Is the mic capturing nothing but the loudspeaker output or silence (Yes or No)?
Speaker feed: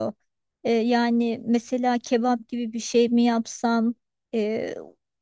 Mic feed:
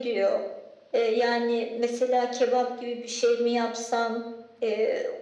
Yes